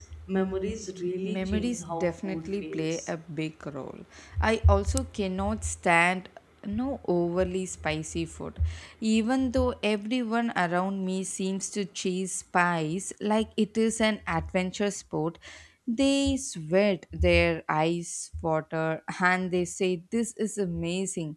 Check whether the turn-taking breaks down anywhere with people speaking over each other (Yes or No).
Yes